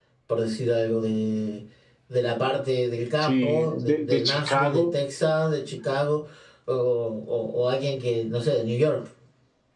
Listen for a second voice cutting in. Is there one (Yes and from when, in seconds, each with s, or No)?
Yes, from 3.2 s